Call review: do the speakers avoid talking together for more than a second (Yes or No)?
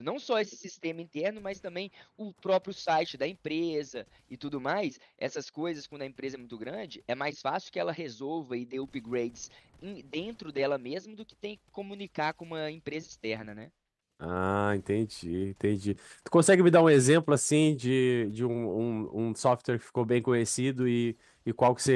Yes